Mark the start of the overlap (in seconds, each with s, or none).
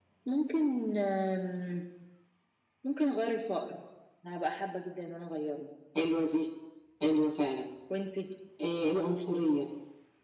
none